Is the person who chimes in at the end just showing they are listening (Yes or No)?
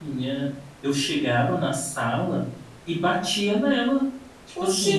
Yes